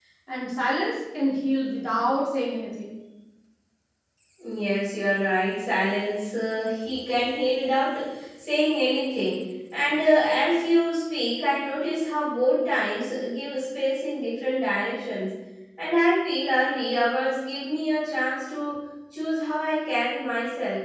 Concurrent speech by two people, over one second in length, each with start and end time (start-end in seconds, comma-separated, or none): none